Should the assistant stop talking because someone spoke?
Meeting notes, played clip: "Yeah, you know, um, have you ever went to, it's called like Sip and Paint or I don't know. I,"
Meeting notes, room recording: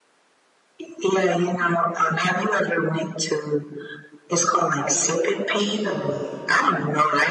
Yes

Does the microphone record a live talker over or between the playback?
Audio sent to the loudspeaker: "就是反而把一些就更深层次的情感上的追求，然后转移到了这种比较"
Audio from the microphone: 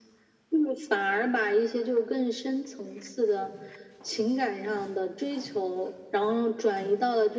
No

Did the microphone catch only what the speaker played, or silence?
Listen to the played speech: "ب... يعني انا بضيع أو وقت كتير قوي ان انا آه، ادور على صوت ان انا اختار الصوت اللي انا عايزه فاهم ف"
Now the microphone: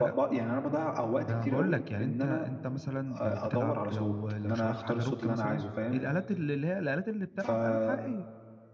No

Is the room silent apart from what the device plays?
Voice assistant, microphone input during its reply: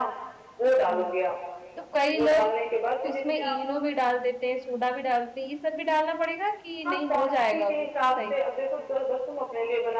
No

